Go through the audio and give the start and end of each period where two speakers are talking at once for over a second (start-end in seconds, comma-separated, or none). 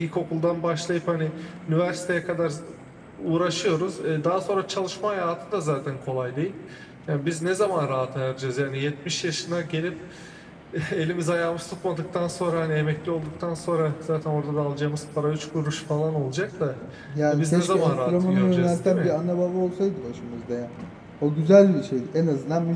17.3-19.1